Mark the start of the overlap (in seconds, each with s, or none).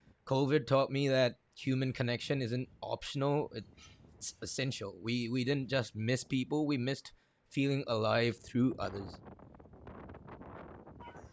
none